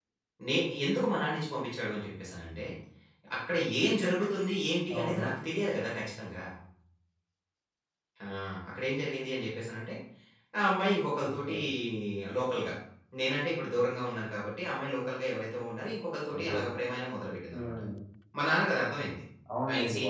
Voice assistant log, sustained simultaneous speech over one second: none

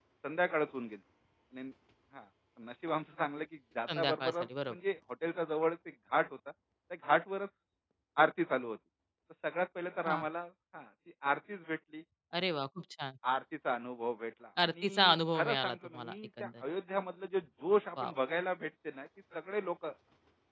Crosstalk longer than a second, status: present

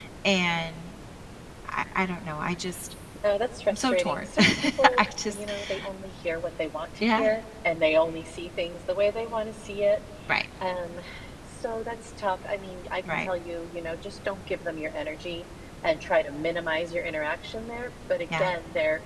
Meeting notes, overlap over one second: present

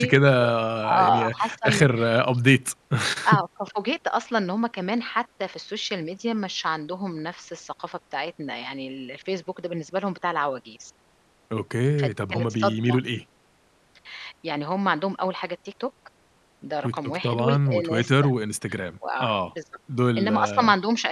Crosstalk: present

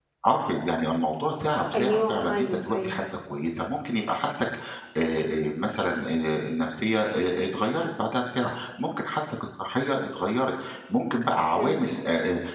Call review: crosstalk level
present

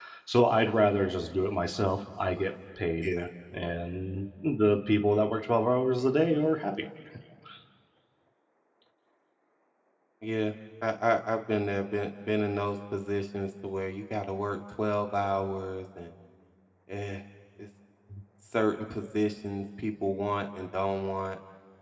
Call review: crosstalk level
none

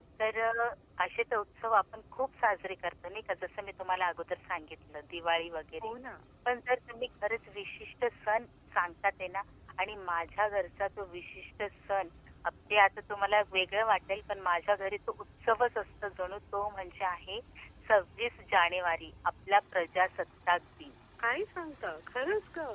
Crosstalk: none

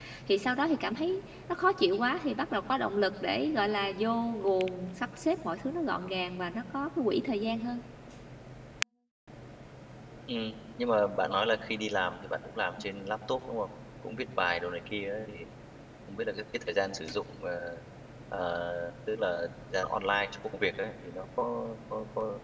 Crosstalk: none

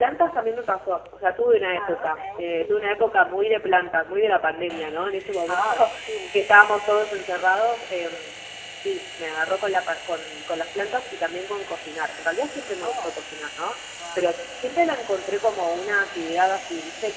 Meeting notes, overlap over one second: present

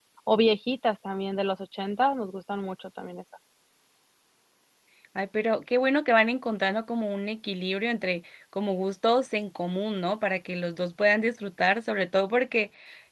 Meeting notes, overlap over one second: none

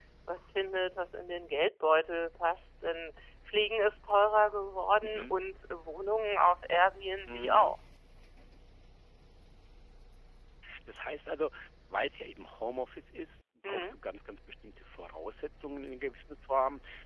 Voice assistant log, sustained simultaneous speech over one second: none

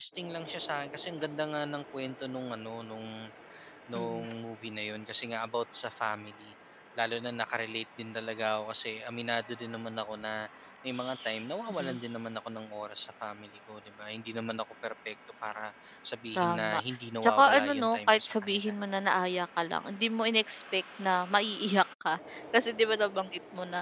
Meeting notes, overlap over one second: present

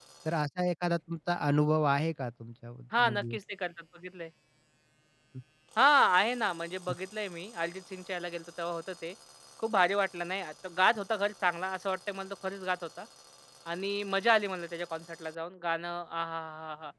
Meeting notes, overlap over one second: none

